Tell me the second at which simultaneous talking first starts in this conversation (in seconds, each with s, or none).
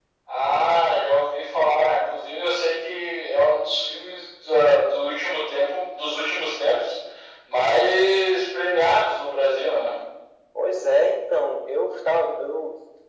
none